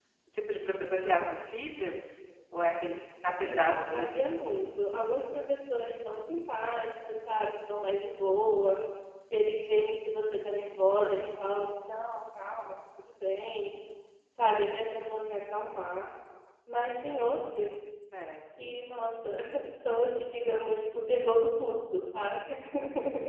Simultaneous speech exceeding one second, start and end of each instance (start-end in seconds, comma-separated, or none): 3.4-5.0